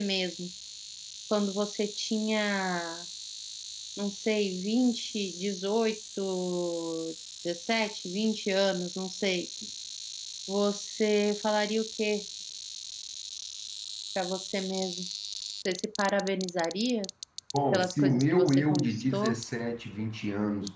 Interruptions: present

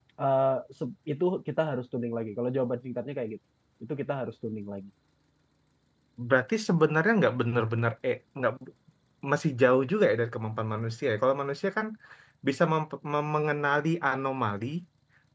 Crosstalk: none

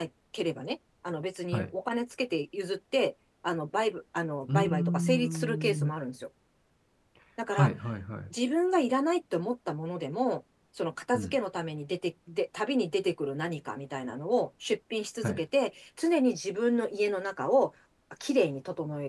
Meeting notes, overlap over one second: present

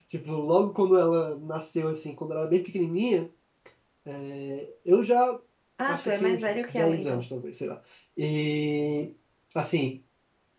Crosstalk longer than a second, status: present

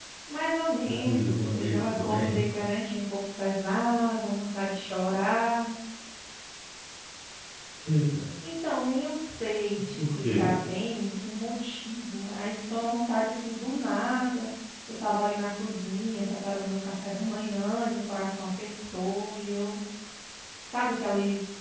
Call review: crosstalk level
present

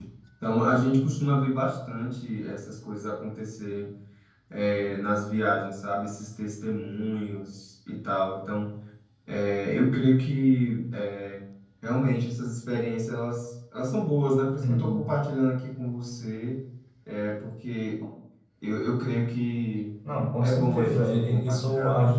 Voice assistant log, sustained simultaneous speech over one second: present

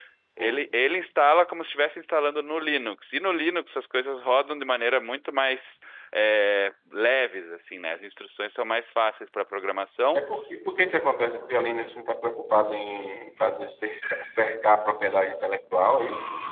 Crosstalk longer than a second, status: none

